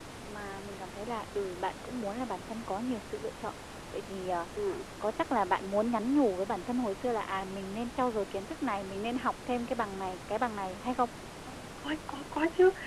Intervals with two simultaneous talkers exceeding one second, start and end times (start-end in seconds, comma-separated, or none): none